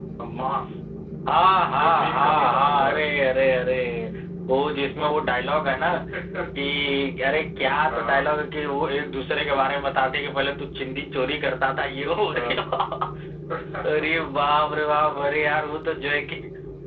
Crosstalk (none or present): present